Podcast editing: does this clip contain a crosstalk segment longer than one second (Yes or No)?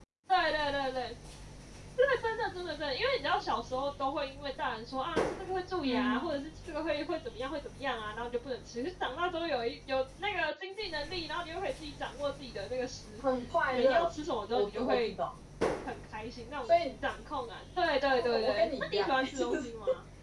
Yes